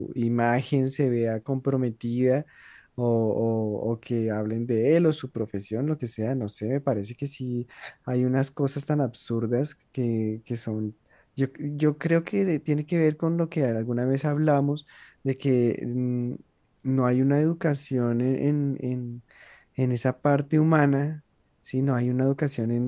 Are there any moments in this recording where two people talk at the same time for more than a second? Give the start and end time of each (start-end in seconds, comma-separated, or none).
none